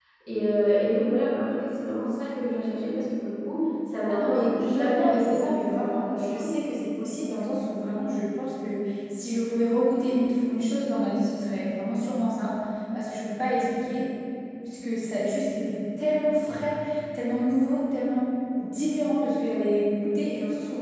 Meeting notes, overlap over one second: present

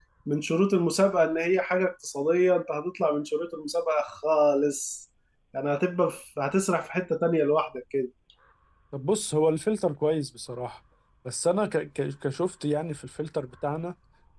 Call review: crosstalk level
none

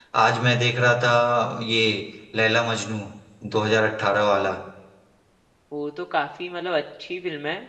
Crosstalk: none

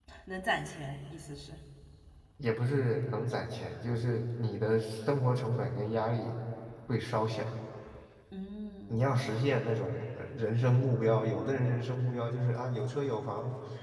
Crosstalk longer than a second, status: none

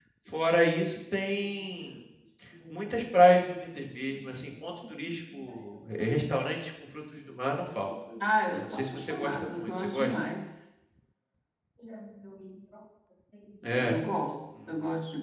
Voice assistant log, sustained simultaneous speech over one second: present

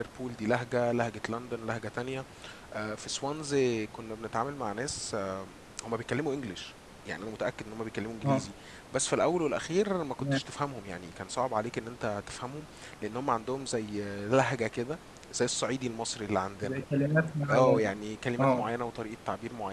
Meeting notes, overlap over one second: none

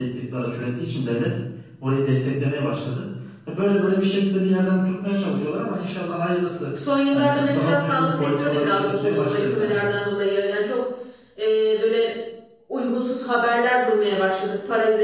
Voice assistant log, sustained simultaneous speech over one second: present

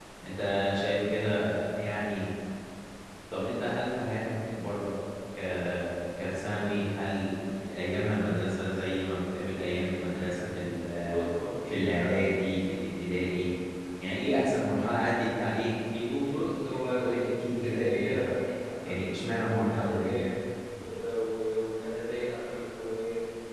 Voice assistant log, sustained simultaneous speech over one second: present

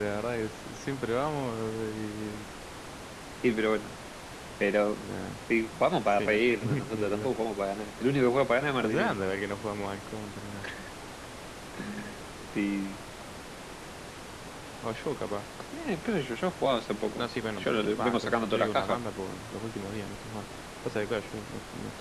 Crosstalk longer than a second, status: present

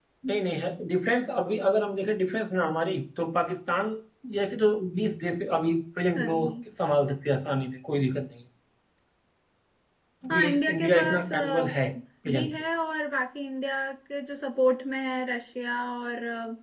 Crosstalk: present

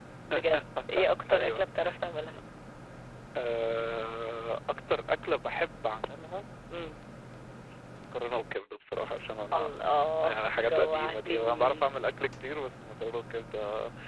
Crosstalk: present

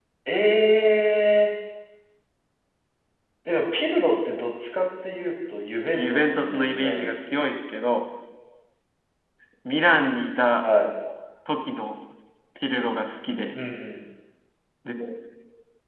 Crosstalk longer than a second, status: present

